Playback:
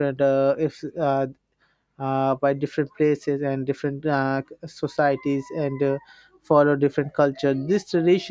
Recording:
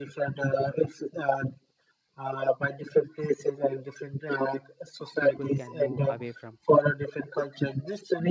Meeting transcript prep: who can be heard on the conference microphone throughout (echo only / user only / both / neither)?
both